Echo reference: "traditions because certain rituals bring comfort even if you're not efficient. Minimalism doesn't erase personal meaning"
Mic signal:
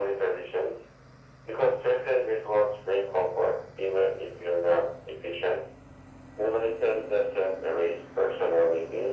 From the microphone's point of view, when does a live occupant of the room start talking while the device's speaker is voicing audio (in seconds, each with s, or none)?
none